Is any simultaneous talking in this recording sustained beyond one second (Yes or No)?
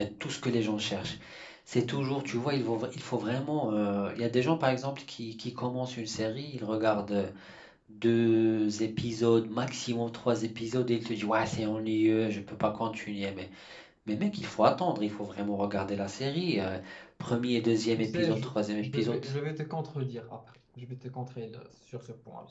Yes